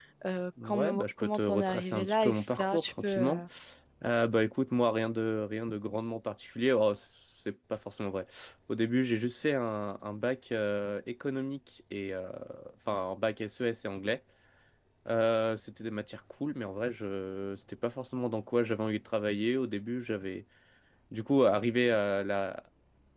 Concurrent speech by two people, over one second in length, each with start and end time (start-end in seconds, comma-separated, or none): 0.7-3.4